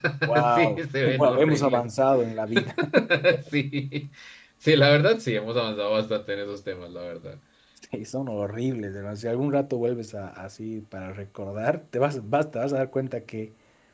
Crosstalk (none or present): present